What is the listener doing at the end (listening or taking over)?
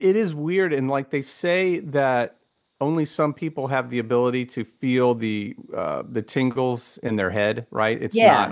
listening